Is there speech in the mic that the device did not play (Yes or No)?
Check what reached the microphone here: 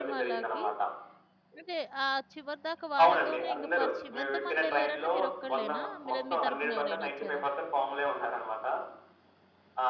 Yes